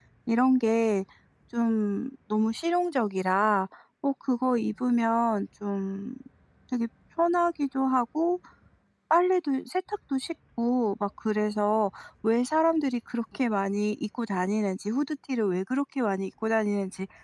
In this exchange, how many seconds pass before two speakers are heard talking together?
none

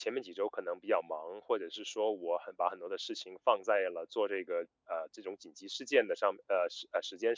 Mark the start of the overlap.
none

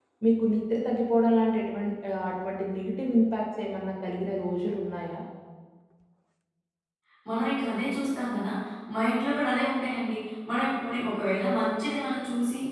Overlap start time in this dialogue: none

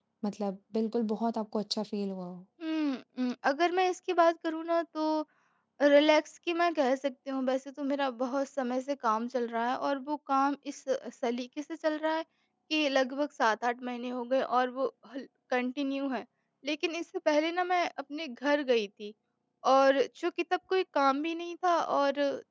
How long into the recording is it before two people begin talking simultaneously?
none

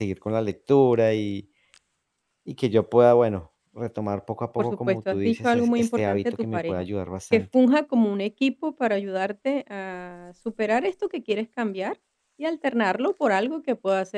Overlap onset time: 4.6 s

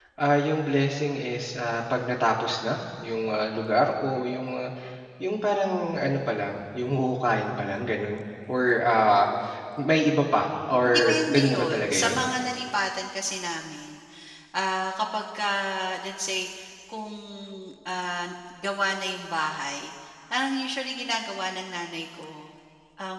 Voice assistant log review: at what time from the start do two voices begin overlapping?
10.8 s

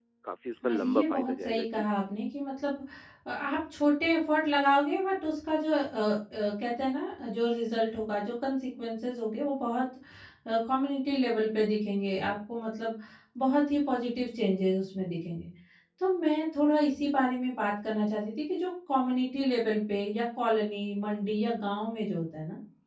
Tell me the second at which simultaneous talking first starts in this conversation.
0.6 s

